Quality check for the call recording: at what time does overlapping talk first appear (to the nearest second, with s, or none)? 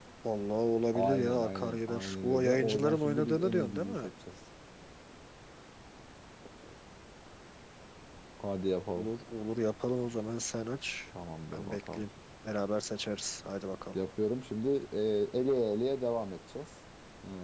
1 s